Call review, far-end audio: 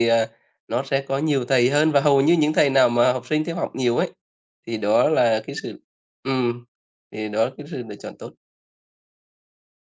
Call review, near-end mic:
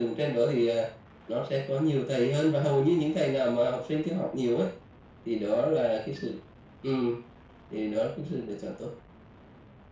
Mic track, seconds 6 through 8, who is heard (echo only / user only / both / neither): echo only